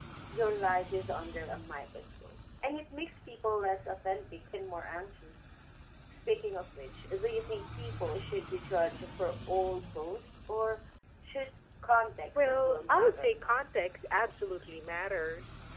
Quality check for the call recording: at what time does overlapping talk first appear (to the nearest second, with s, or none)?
12 s